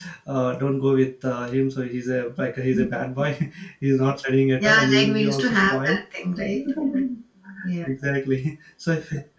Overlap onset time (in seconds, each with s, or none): 4.6 s